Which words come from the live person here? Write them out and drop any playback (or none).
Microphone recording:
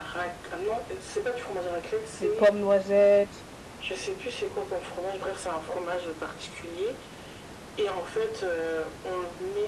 mais pomme noisette,